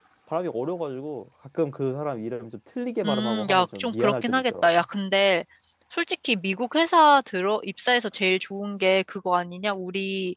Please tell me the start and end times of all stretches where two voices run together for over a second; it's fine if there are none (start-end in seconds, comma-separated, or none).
3.0-4.7